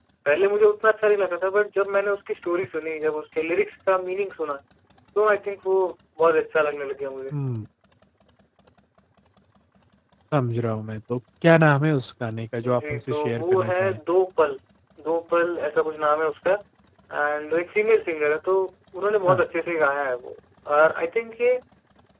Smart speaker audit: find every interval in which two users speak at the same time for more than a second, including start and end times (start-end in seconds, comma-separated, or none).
12.6-14.0